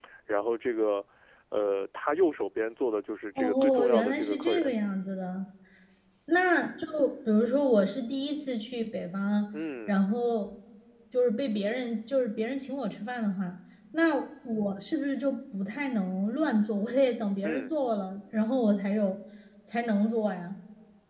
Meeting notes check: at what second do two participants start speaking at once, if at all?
3.4 s

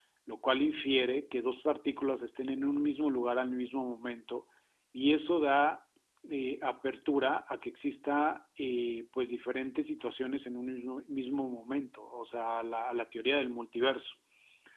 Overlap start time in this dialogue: none

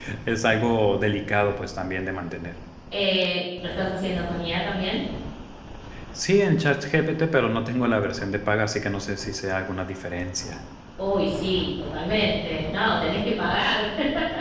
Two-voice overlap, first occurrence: none

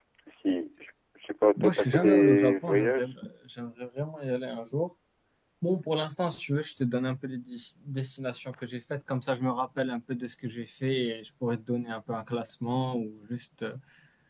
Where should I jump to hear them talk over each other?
1.6 s

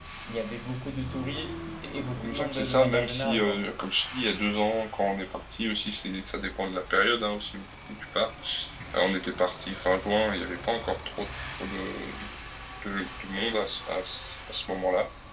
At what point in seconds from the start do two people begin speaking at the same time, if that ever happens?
2.2 s

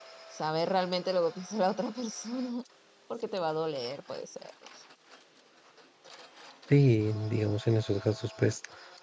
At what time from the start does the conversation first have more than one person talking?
none

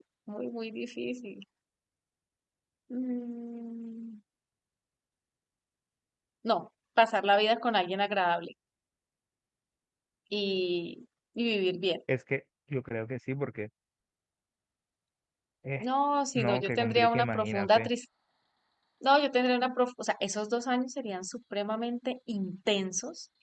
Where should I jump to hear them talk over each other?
16.4 s

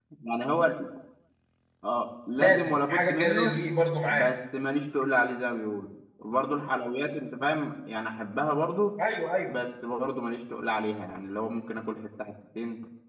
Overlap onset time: 2.4 s

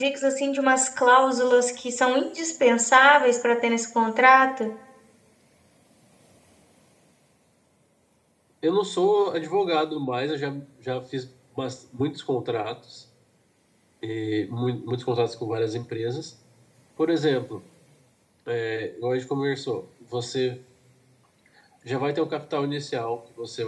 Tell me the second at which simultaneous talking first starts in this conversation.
none

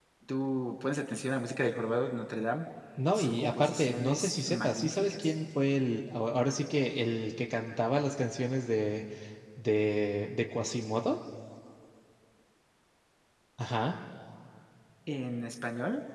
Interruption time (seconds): 3.1 s

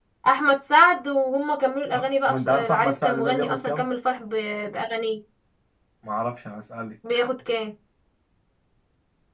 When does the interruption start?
1.9 s

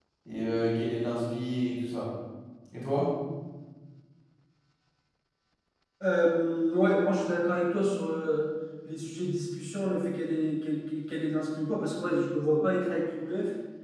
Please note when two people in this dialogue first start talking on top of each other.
none

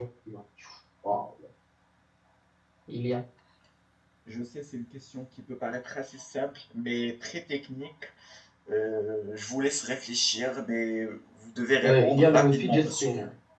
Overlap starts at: 11.8 s

